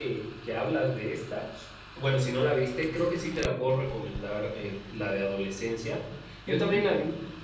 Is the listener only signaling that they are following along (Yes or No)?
Yes